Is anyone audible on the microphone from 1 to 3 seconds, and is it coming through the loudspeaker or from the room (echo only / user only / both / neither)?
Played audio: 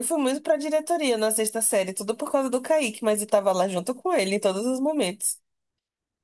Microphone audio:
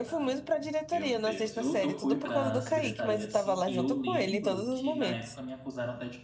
both